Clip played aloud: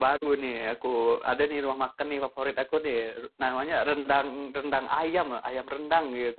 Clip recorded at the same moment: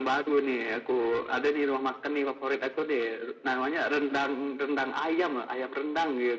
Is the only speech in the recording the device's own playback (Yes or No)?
Yes